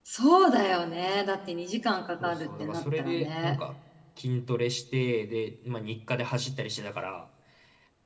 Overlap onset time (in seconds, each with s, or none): 2.2 s